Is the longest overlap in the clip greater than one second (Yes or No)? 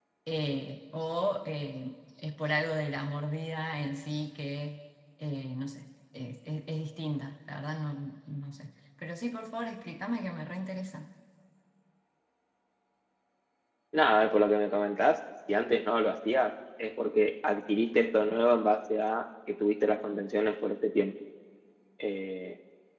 No